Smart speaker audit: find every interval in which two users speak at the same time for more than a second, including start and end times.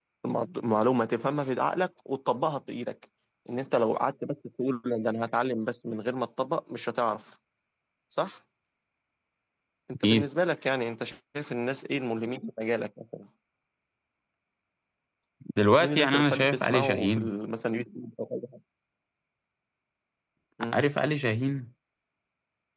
15.8-17.3

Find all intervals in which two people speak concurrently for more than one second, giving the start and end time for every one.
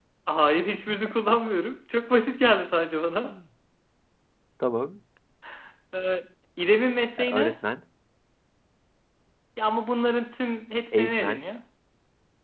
none

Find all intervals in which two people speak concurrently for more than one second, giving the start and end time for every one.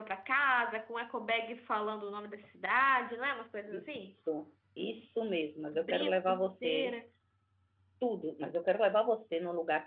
5.7-6.9

